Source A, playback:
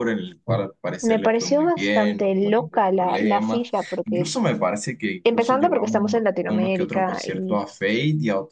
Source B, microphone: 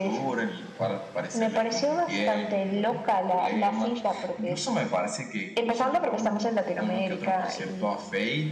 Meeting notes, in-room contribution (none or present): none